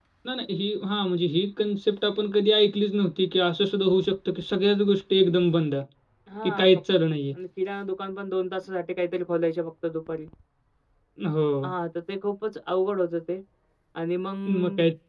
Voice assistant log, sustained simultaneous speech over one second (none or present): none